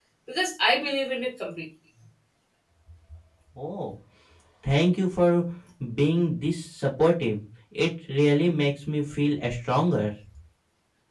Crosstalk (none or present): none